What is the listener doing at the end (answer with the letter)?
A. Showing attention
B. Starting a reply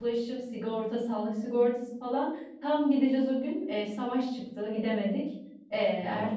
A